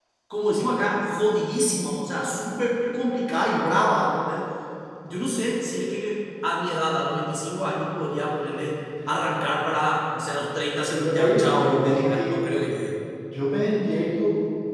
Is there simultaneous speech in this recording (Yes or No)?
Yes